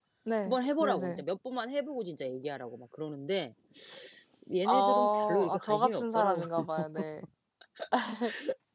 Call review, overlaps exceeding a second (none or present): present